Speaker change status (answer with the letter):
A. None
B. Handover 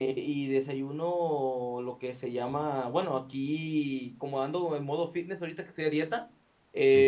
A